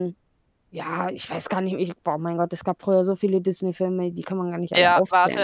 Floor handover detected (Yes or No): Yes